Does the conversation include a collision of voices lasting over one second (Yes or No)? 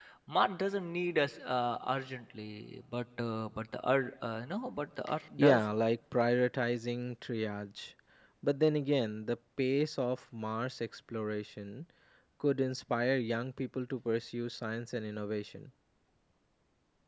No